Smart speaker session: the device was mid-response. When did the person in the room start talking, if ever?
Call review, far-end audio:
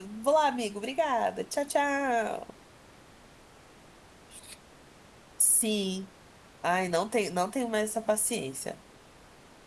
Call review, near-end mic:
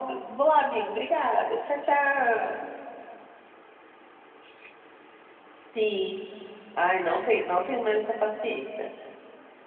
none

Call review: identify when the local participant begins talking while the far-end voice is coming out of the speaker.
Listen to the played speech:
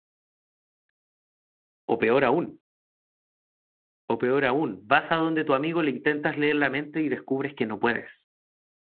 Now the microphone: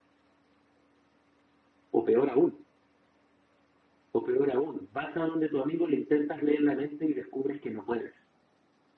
none

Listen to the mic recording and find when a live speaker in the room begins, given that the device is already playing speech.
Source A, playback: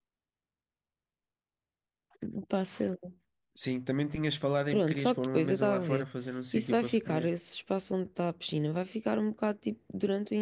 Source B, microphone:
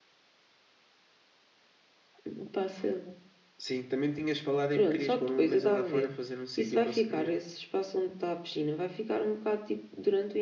none

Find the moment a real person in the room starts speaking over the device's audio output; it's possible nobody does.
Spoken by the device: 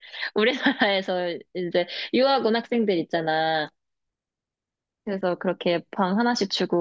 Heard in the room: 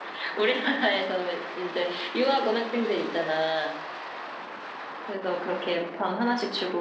none

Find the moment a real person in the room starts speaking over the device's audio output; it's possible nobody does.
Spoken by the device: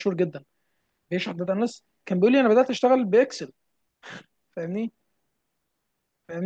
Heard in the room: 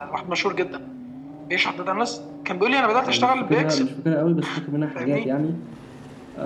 3.0 s

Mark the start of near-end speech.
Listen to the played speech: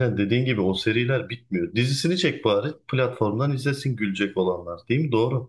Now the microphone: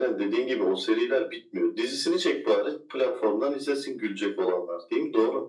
none

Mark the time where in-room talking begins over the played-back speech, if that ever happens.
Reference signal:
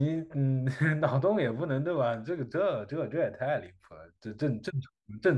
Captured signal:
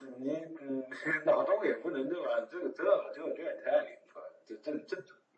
none

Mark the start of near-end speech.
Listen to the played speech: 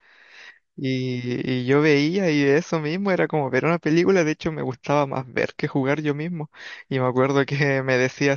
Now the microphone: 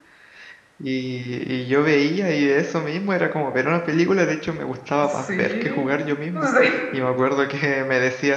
5.0 s

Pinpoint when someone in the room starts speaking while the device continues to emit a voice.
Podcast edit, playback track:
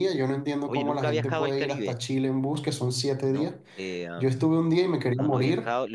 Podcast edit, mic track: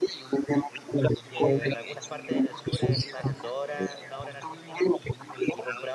1.3 s

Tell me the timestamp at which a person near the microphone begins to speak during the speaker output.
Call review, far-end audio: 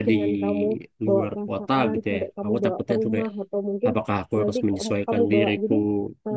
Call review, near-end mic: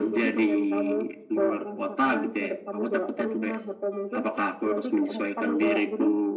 none

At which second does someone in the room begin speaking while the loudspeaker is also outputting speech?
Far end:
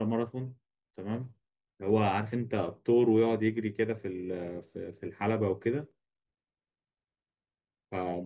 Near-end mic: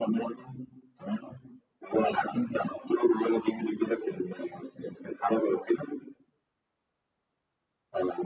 none

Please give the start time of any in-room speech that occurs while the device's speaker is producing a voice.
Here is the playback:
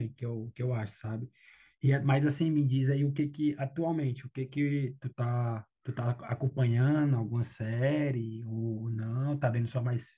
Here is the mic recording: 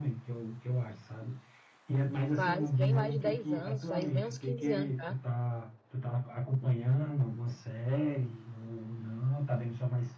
2.4 s

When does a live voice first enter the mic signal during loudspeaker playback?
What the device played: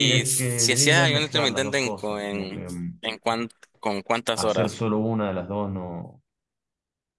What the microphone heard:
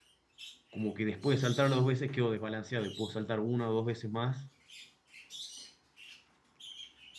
0.7 s

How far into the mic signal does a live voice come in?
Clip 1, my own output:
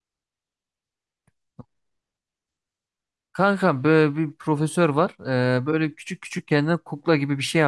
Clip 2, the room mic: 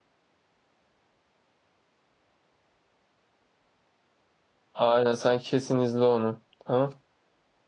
4.8 s

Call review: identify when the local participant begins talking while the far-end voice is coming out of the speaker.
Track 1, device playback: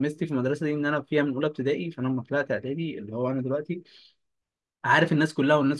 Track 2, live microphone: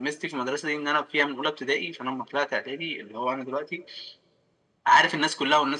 none

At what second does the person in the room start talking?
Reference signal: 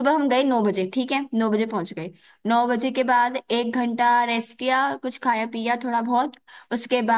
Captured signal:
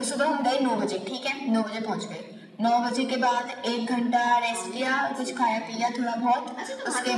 4.5 s

